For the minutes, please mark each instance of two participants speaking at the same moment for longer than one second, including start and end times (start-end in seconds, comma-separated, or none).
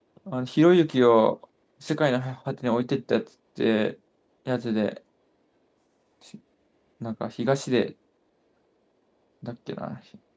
none